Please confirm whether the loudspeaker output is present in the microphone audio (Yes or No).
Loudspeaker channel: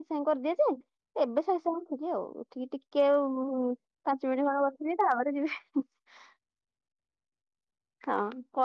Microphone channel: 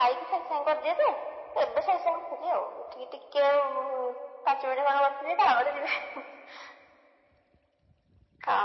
Yes